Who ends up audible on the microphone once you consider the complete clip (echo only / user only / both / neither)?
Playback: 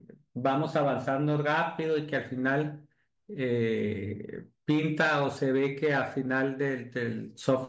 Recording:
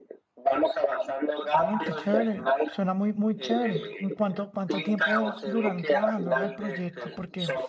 both